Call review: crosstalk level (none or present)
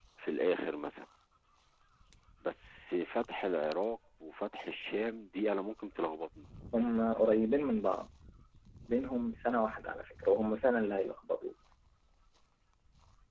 none